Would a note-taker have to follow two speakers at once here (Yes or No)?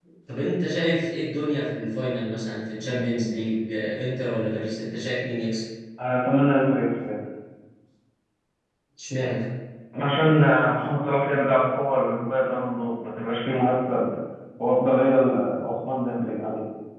No